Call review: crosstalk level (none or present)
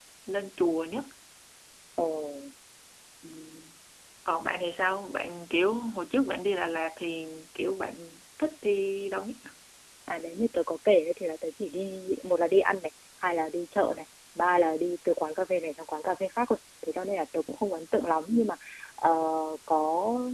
none